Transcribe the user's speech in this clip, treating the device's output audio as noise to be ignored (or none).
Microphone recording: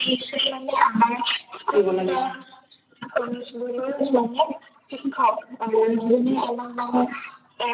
দিব লাগে